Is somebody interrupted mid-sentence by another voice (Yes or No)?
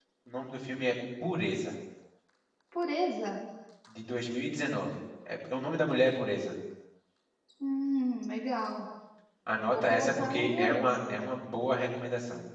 Yes